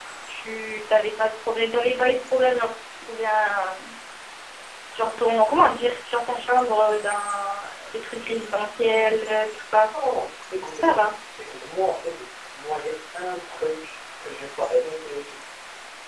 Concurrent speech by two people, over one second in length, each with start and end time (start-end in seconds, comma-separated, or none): none